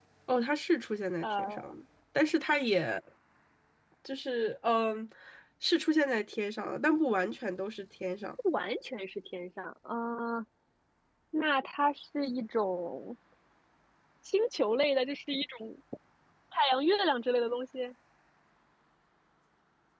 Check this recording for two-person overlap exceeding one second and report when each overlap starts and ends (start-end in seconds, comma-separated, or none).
none